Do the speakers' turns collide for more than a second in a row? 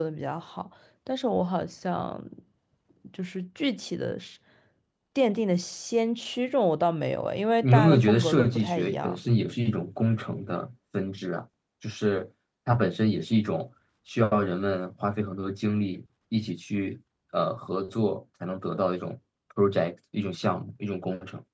Yes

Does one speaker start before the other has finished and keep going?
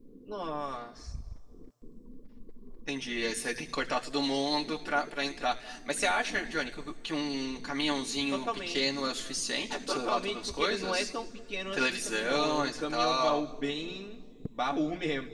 Yes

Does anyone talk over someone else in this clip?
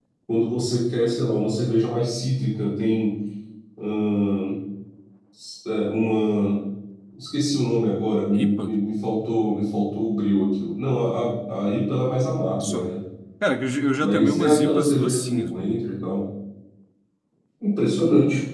Yes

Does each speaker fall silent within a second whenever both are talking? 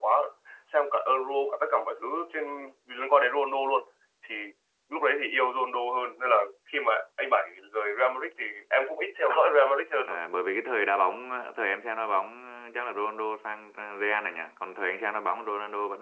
Yes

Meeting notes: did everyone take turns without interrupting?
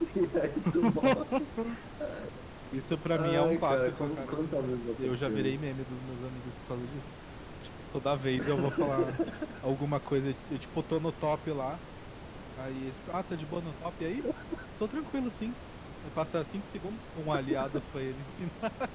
No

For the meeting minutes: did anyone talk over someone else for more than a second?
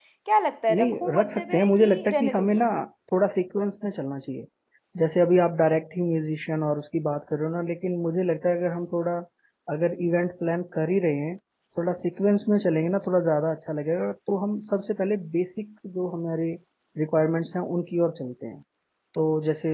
Yes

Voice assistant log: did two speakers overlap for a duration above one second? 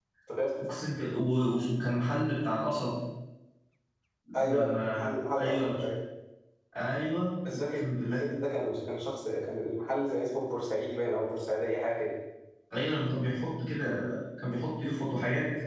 Yes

